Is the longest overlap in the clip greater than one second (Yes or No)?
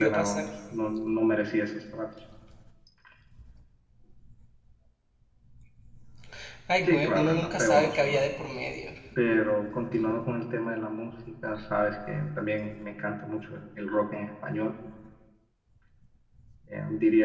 Yes